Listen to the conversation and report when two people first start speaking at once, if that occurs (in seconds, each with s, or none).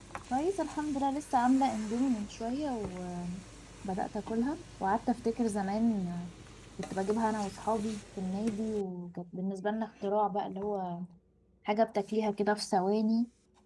none